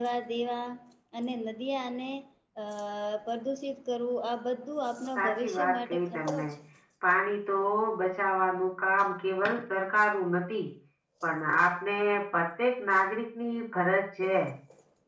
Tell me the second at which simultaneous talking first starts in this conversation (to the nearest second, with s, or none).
5 s